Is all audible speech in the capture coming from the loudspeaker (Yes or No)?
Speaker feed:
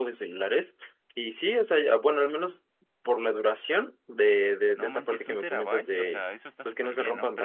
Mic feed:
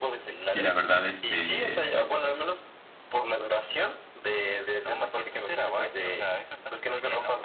No